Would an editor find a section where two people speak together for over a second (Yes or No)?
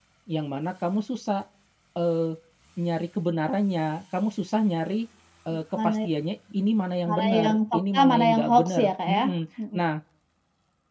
Yes